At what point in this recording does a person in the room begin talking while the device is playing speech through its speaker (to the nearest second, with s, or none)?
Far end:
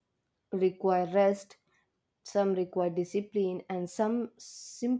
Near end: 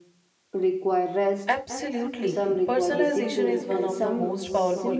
1 s